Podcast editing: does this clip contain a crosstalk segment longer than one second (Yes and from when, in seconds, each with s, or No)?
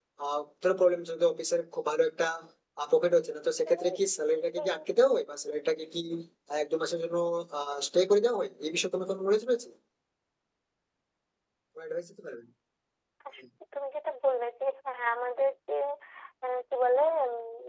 No